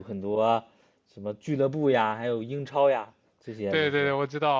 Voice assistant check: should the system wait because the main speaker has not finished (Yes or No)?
No